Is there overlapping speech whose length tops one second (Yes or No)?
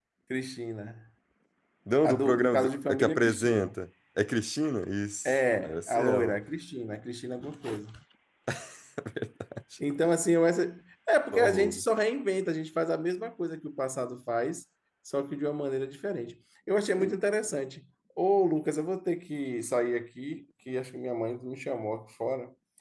Yes